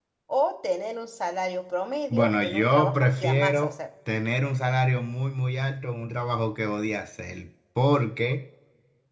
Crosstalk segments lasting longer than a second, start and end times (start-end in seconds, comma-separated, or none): 2.1-3.7